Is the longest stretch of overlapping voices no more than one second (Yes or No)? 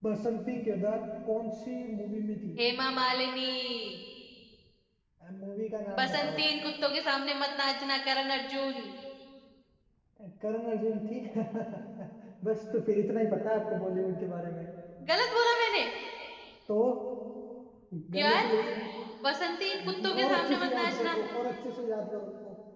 No